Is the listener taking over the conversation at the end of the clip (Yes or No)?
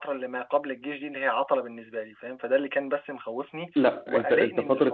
Yes